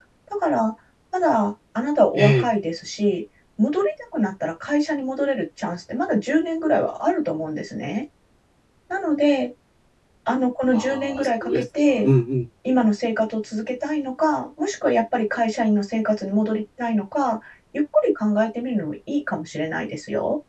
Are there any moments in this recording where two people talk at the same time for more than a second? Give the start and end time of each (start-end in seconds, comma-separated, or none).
10.7-12.1